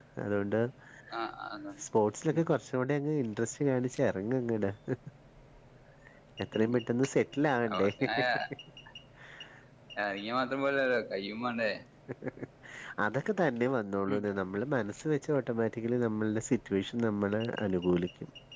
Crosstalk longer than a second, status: none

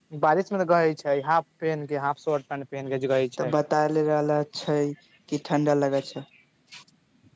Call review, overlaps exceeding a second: none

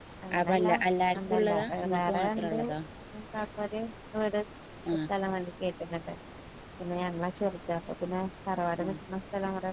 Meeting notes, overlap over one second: present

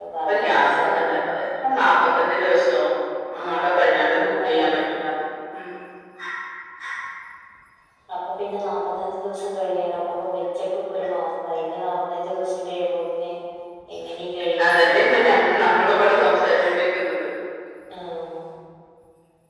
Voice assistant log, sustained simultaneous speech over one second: present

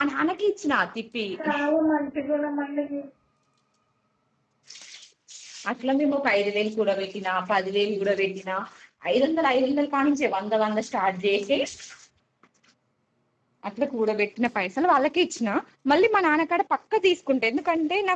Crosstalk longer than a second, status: none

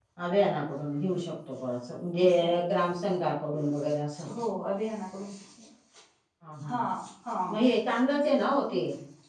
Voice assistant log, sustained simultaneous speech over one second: none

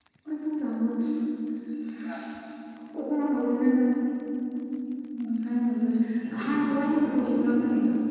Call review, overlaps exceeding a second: present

